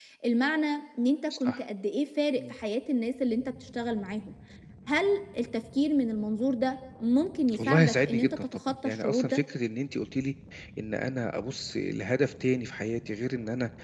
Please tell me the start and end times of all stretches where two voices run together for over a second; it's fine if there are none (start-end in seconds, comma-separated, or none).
7.6-9.4